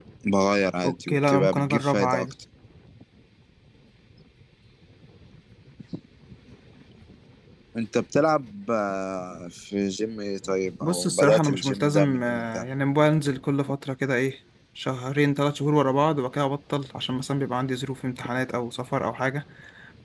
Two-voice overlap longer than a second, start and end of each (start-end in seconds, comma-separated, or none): 0.8-2.2, 10.8-12.6